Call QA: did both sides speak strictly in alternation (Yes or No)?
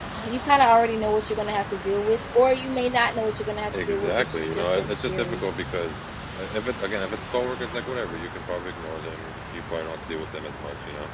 No